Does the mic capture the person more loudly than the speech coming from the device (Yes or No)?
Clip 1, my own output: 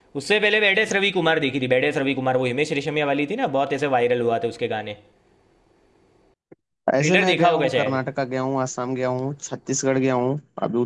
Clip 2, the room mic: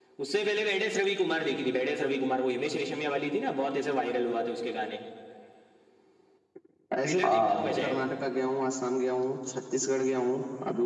Yes